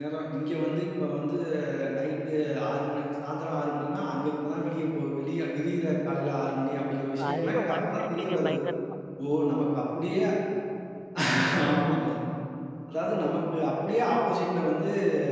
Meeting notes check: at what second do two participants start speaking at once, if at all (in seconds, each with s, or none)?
7.2 s